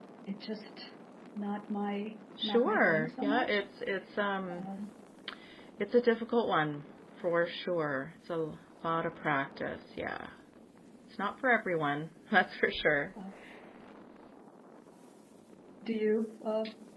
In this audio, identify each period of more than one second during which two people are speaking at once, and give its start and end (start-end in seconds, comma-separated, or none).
2.4-3.6